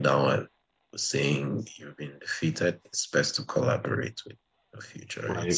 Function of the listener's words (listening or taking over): taking over